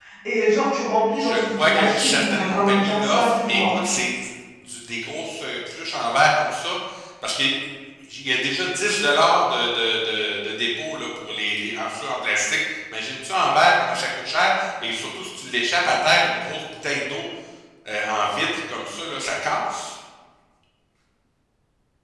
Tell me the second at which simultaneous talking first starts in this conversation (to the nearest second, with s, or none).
1 s